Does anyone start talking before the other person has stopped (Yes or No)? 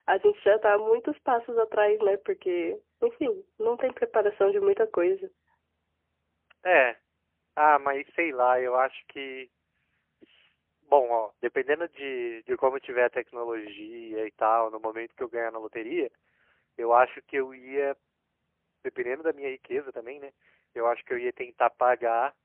No